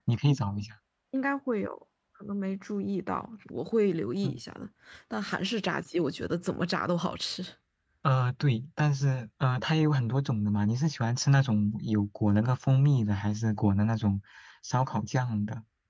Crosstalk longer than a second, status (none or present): none